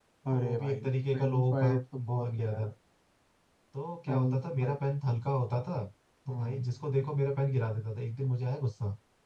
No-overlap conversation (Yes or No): No